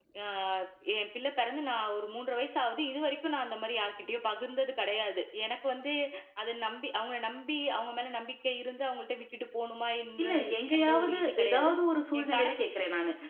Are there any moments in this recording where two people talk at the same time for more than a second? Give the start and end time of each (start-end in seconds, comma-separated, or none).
10.2-11.7